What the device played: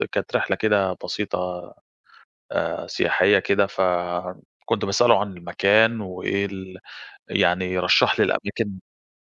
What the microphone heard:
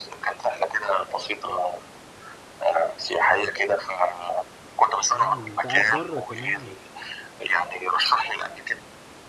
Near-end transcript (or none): آه، يعني أنت قاعد برّه كمان،